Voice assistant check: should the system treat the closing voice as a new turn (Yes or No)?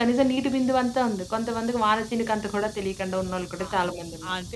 Yes